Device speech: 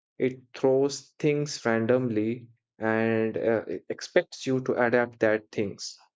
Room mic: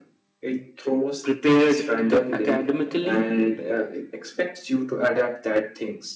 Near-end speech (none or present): present